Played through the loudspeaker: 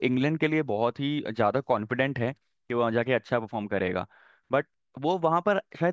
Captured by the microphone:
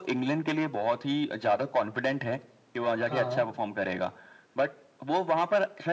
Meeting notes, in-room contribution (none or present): present